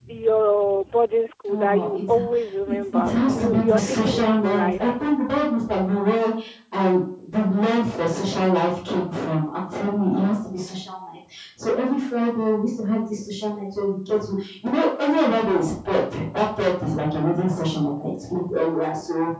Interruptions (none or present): present